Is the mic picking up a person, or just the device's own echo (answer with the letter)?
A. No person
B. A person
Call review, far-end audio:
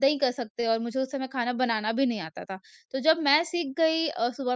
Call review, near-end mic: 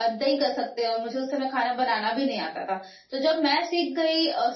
A